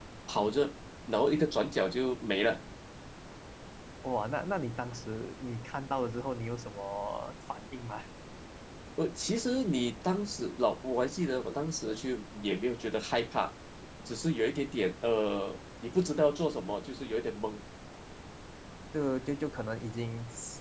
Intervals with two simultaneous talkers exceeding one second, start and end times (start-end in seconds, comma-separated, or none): none